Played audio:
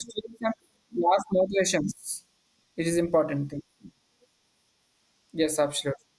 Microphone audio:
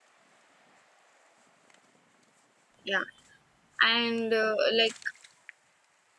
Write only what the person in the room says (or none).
Yeah. And uh, like